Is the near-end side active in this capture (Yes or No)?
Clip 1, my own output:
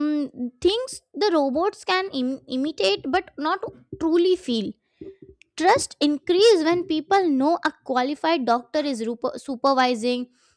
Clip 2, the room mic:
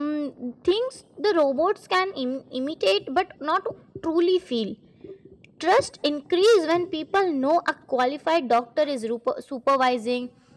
No